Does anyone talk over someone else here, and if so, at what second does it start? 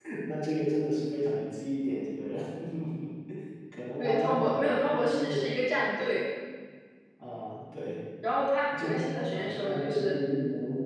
4.0 s

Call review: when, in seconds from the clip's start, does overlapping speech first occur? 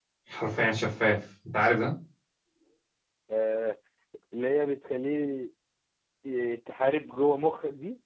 none

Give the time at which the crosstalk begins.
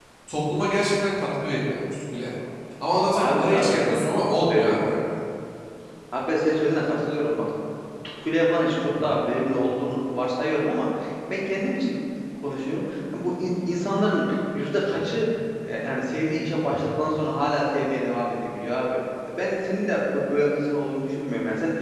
3.1 s

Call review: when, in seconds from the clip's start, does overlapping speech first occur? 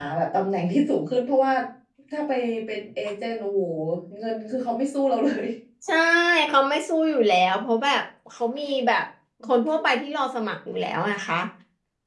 none

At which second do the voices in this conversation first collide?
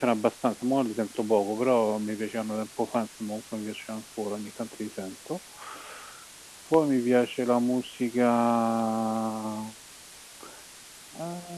none

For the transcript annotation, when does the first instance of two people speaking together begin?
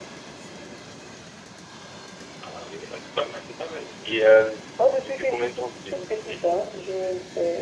5.0 s

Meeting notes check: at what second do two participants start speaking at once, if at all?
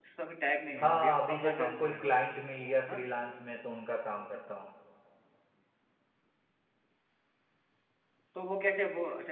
0.8 s

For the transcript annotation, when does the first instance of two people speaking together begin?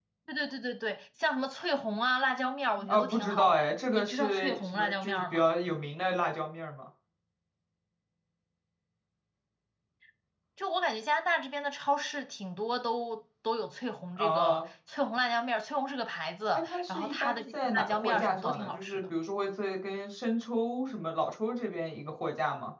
2.9 s

